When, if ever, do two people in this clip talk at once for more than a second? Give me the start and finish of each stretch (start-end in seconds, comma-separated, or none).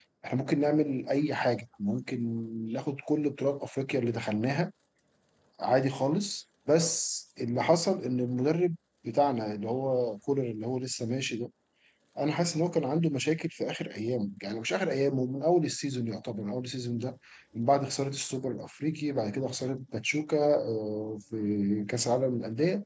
none